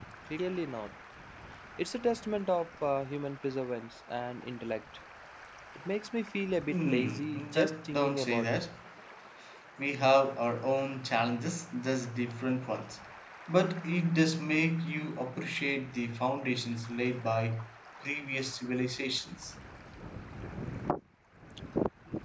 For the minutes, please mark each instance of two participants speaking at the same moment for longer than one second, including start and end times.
6.7-8.5

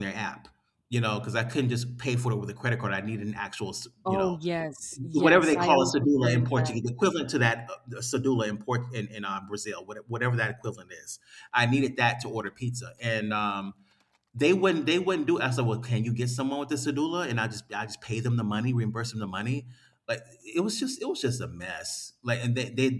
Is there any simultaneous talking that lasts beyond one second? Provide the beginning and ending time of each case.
5.1-6.8

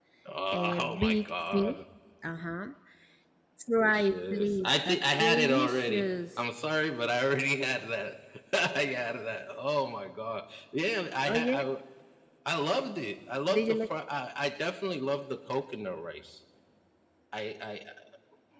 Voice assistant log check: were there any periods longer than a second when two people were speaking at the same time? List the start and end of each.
0.5-1.7, 3.8-6.3

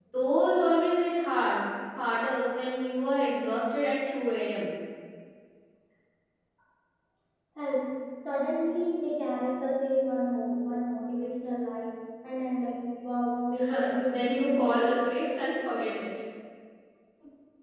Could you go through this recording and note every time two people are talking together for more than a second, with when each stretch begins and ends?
13.7-14.9

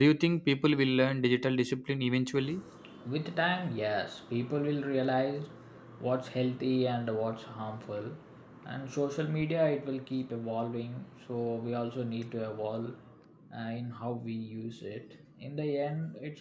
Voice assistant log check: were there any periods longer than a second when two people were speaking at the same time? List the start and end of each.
none

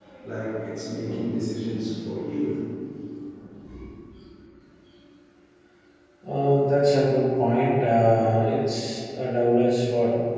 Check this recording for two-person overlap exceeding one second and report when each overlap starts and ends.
none

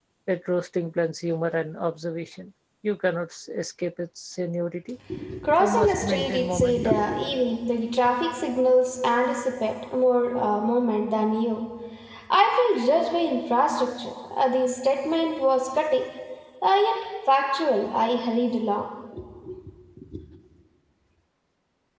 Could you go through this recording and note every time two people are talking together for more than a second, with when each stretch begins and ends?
5.6-7.0

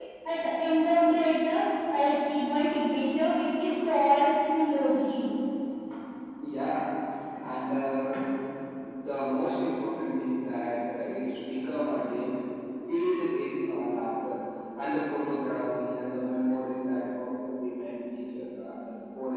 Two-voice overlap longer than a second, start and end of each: none

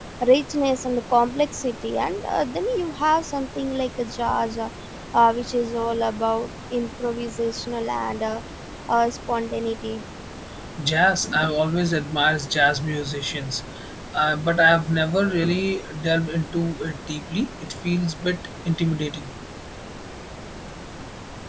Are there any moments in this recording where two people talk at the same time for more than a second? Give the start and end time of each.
none

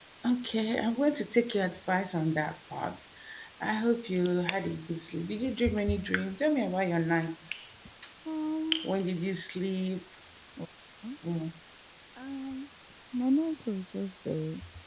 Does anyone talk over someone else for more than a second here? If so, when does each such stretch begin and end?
none

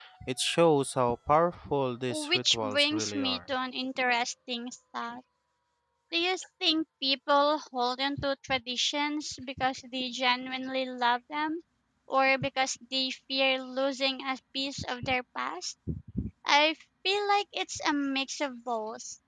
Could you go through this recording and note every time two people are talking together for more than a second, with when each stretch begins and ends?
2.1-3.4

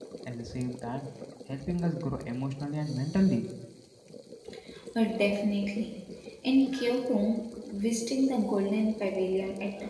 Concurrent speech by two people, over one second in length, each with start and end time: none

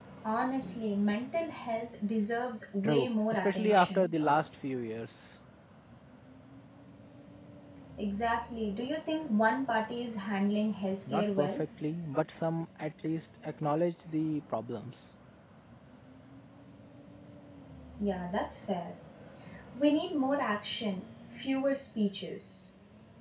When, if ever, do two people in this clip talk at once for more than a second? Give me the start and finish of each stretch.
2.8-4.1

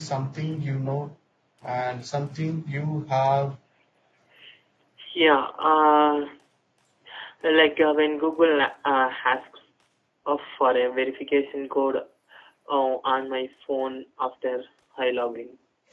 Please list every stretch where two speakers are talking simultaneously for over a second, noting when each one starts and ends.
none

